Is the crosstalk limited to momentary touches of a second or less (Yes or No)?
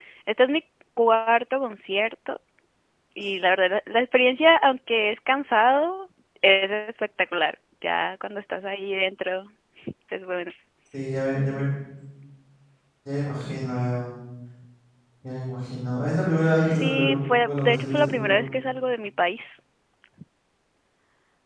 No